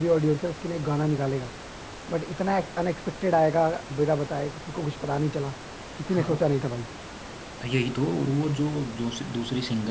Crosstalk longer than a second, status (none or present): none